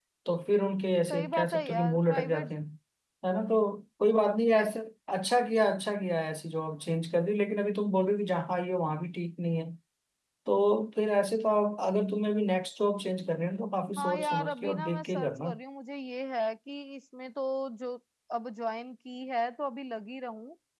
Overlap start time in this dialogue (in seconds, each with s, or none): 1.1 s